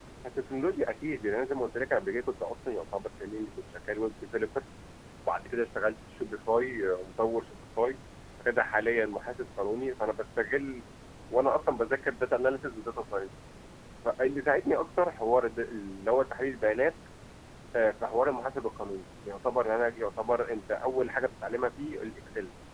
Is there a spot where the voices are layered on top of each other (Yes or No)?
No